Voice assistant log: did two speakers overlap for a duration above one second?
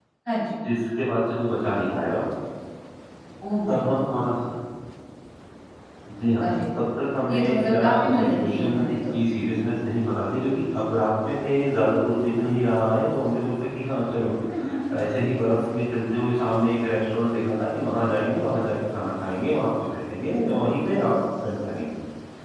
Yes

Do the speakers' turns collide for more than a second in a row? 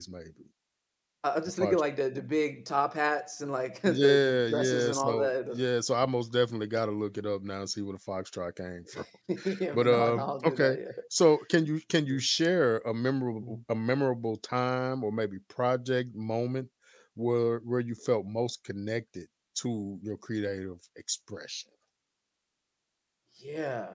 Yes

